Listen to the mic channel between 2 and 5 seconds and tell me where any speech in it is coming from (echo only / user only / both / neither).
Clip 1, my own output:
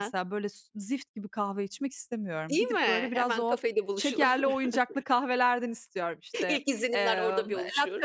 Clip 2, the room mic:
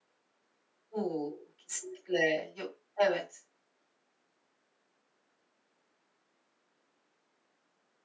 user only